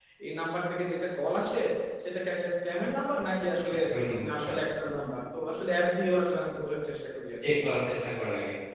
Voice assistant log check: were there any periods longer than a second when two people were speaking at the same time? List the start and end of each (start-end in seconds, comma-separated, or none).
none